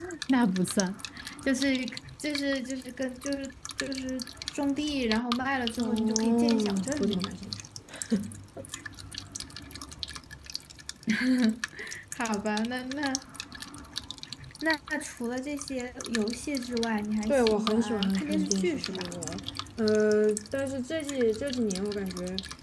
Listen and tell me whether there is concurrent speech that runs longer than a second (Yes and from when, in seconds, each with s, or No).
Yes, from 5.8 s